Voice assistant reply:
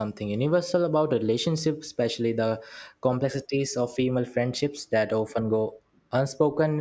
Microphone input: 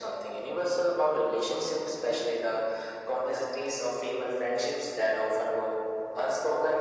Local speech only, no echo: none

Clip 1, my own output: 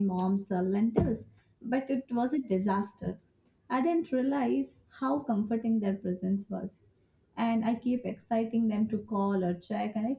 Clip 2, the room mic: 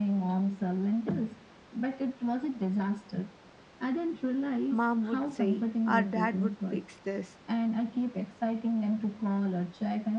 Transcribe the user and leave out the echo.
mom would say, or dad would fix this.

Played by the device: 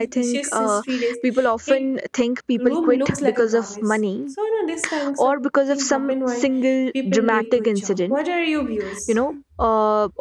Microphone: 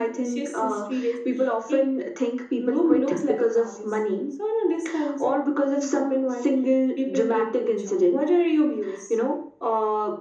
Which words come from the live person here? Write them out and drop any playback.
none

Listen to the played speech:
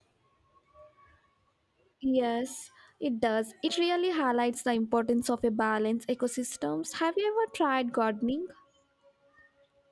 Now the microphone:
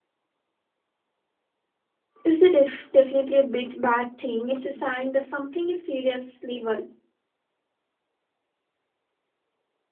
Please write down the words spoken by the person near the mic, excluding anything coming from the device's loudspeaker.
it's a def- definitely a bit bad thing. It's a sign that something is seriously wor-

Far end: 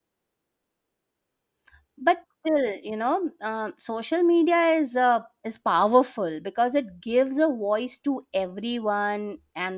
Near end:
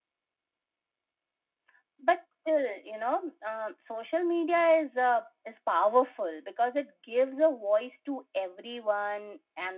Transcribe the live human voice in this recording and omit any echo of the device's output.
none

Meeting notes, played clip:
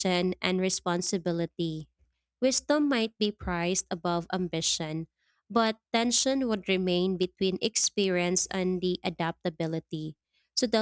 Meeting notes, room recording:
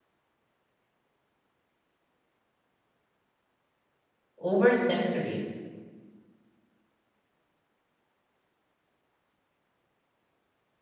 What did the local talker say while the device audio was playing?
over centuries

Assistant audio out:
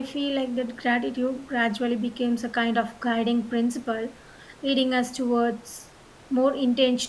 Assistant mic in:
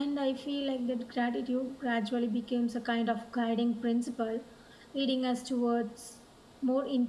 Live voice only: none

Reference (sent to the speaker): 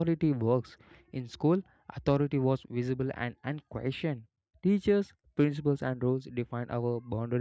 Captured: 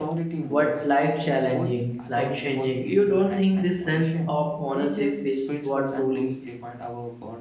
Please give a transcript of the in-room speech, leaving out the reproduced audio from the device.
but life challenging, life changing. You don't think this sense of ownership is what truly

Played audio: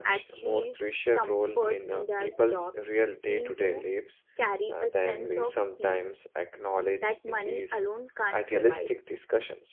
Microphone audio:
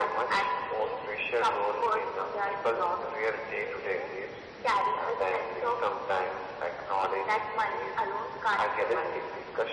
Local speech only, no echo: none

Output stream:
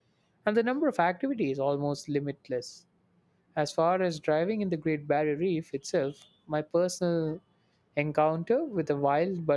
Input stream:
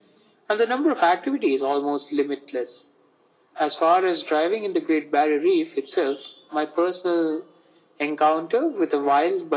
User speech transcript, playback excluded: none

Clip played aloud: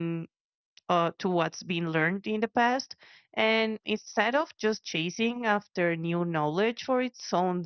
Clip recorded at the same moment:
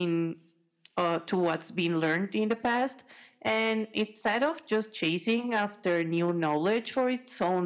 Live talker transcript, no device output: none

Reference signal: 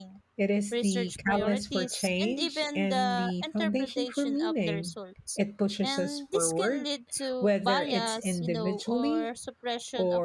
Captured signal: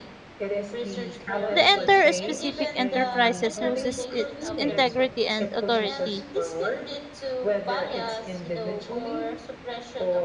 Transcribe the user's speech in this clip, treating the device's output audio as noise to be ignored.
the entire specific enterprises loses its integrity and authority.

